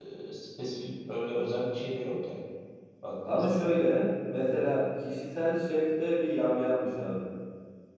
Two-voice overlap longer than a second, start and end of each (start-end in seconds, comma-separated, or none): none